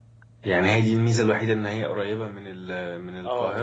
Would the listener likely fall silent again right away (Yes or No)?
No